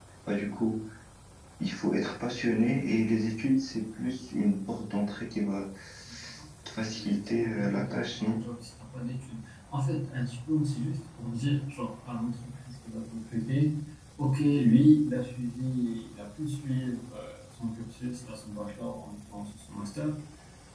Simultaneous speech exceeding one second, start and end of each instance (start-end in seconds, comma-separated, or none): 6.9-8.4